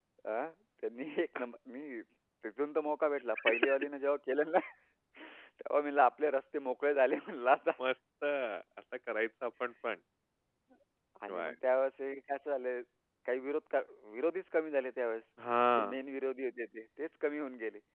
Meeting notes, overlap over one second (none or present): none